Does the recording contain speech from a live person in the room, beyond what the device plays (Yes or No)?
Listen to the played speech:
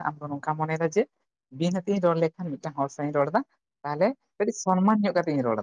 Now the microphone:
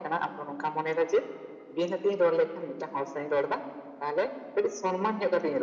No